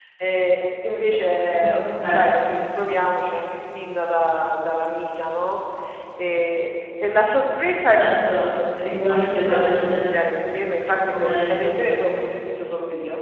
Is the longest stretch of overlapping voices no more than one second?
No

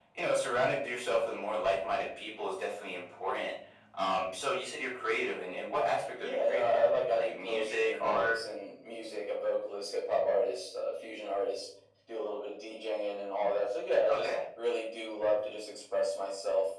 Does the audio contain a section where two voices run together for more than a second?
Yes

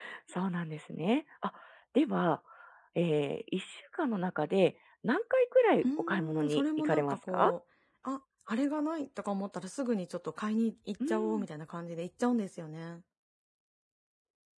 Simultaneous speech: Yes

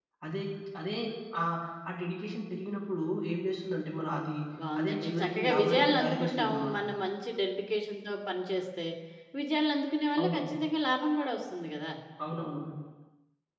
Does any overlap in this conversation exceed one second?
Yes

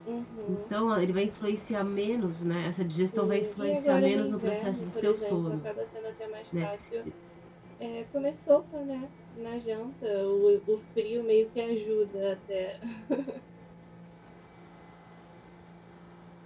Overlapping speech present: Yes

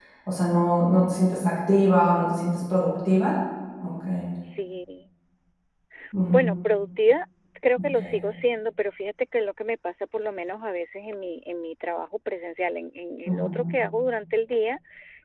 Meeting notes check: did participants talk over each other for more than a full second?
No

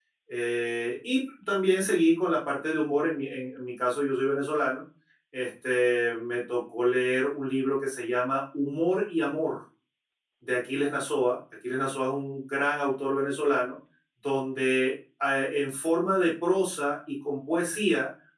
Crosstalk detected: No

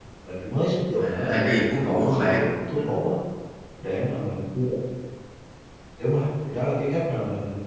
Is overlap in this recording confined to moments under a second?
No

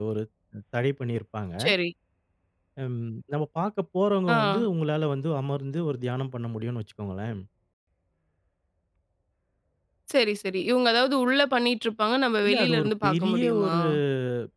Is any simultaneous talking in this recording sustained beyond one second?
Yes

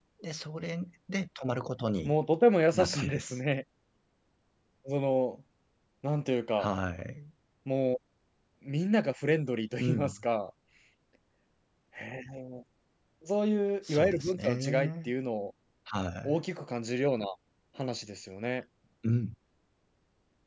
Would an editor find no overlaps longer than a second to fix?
No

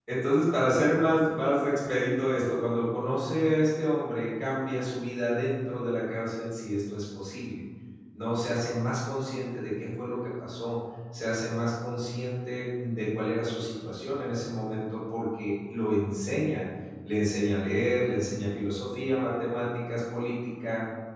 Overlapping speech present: No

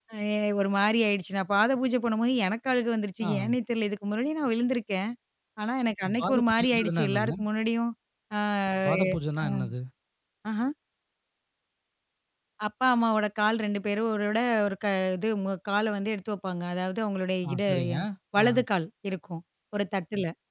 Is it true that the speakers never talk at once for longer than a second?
No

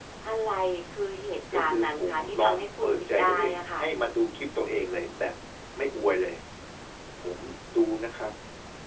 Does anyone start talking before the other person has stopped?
Yes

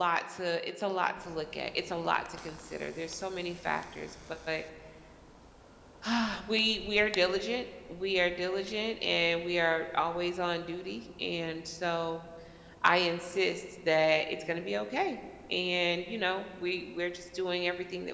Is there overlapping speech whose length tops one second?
No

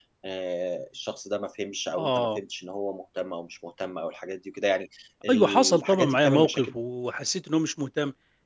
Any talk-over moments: Yes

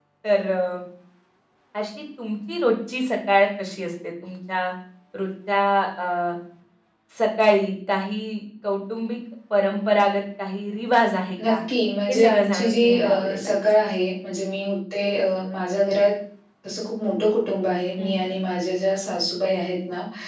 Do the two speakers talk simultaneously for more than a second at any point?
Yes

